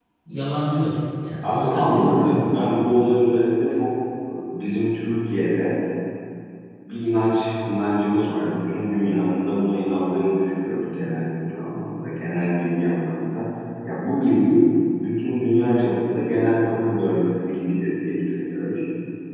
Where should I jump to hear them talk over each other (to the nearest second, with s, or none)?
1 s